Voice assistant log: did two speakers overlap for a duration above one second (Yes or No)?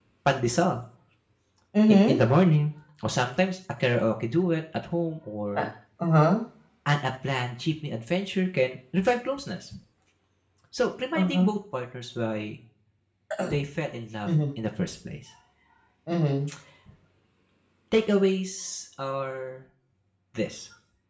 No